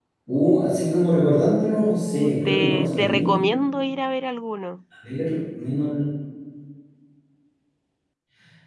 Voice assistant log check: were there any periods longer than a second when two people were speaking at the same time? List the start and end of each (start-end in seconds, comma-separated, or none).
1.4-3.4